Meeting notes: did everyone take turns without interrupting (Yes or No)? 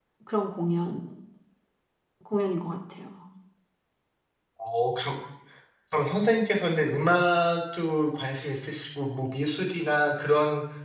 Yes